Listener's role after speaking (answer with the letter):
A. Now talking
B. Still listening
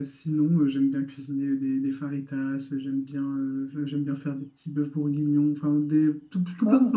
B